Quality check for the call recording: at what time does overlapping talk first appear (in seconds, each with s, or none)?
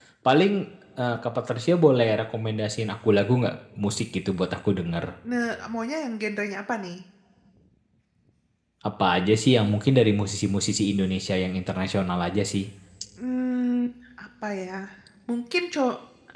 none